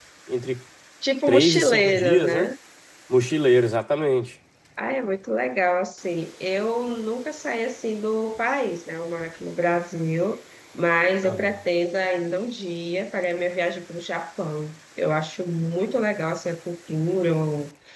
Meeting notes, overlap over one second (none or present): present